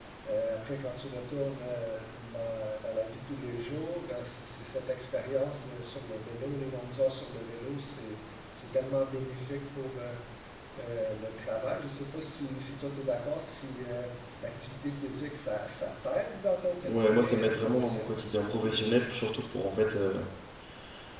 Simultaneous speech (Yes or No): Yes